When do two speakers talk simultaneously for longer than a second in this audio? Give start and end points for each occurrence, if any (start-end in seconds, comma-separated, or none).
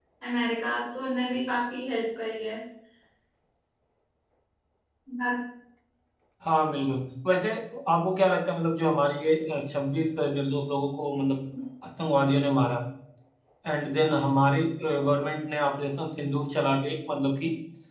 none